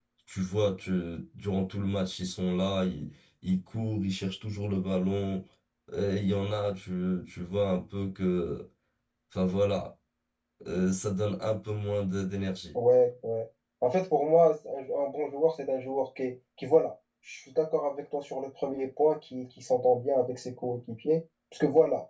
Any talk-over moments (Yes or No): No